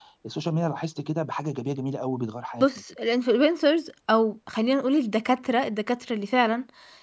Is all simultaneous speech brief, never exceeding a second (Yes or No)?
Yes